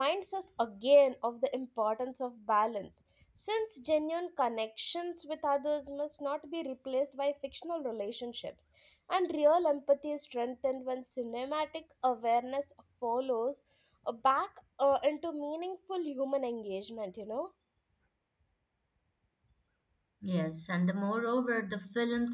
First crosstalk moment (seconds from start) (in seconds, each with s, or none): none